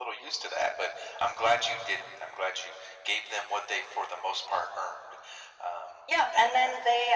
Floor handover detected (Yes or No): Yes